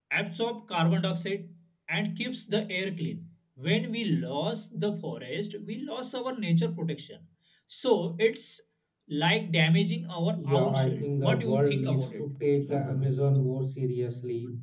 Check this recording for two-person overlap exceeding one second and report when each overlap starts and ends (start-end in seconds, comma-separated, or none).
10.4-12.2